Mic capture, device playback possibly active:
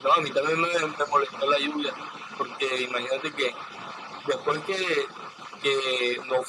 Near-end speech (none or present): none